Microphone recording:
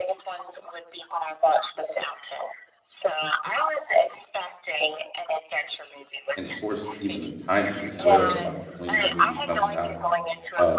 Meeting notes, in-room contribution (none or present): present